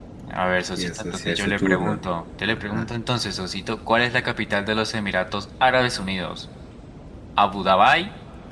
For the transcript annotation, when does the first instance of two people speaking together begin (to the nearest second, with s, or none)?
1 s